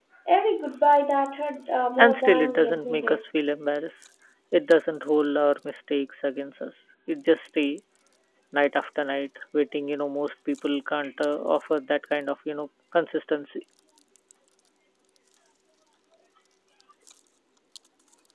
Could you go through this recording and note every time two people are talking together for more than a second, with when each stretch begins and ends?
2.0-3.2

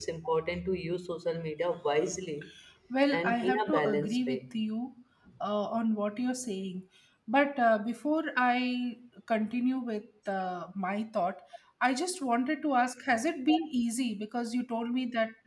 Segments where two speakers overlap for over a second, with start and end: 3.1-4.5

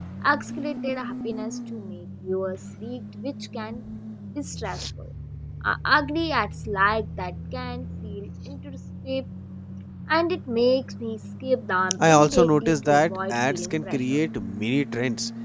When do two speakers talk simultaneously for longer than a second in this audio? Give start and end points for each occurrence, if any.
12.1-14.2

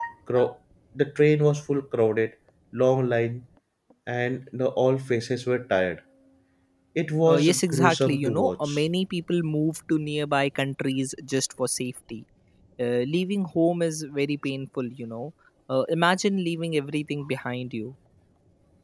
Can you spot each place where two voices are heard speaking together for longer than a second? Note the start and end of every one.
7.3-8.8

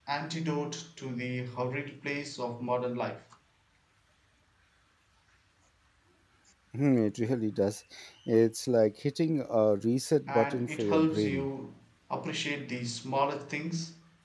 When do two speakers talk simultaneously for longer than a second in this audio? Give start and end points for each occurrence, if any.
10.3-11.5

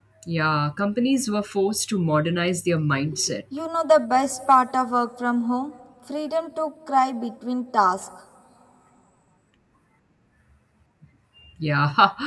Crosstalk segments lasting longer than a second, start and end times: none

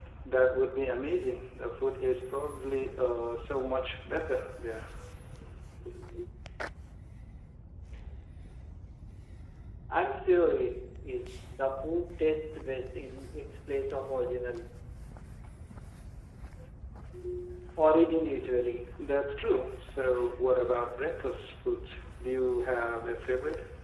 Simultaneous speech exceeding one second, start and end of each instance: none

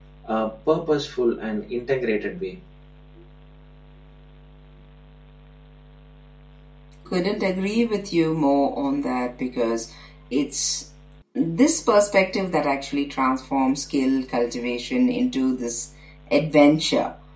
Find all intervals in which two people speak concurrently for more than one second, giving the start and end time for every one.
none

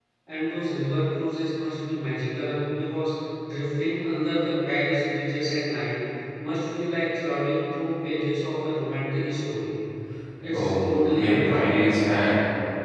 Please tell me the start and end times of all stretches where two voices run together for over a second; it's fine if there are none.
10.5-11.8

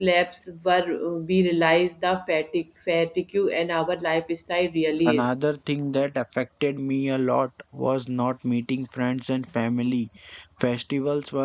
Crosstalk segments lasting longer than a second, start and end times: none

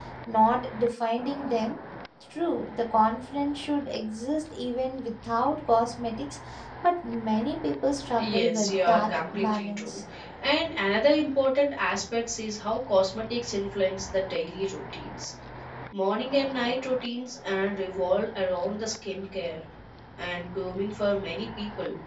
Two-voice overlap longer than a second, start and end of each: 8.2-10.0

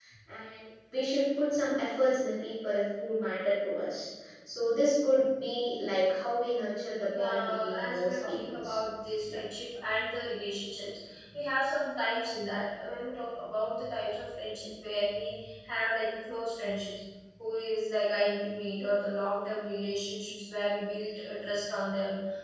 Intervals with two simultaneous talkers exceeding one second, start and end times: 7.2-8.8

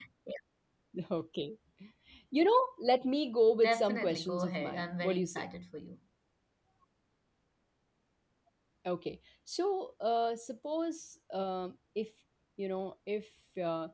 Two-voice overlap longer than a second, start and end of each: 3.6-5.4

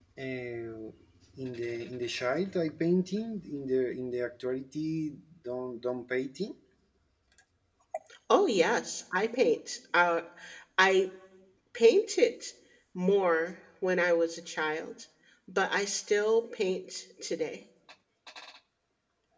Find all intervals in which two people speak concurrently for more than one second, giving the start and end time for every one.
none

